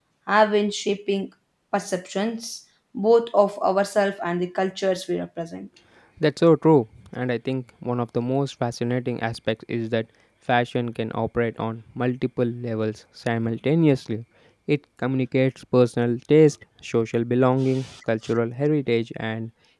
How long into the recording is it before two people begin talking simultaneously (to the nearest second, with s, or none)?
none